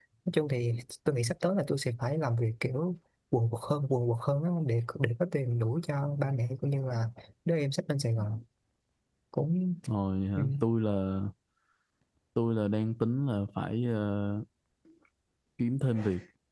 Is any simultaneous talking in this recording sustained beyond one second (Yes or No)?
No